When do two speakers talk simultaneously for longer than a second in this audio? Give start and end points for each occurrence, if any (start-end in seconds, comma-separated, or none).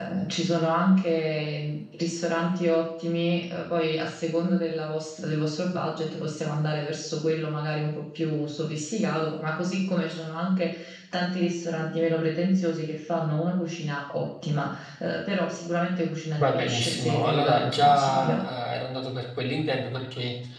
16.4-18.4